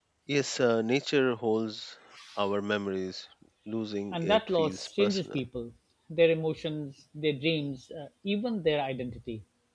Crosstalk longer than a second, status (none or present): present